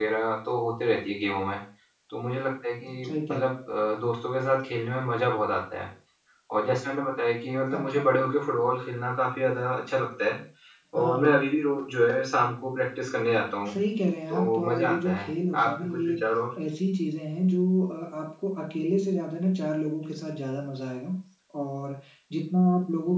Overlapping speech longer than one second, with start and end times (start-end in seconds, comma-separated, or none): 14.3-16.2